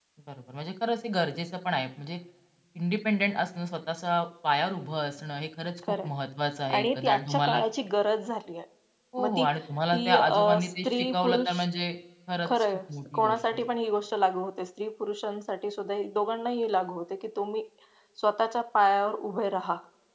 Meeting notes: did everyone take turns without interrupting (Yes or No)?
No